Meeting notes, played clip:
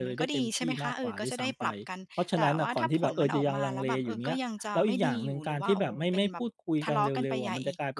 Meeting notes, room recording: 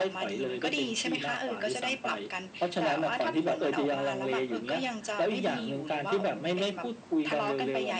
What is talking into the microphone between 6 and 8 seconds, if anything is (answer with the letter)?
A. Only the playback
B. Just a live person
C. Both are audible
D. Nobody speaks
A